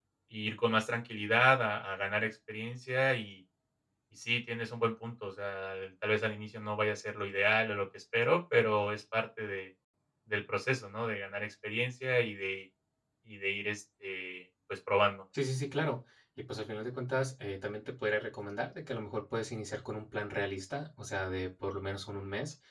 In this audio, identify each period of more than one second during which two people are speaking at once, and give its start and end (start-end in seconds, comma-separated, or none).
none